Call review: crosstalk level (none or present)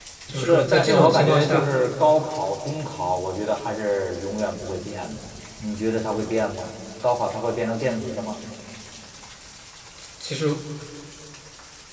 present